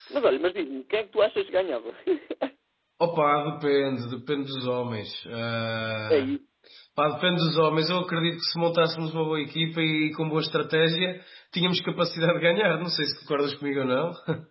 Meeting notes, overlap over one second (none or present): none